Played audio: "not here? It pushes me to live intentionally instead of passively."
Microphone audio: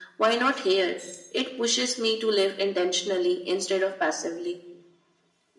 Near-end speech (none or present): none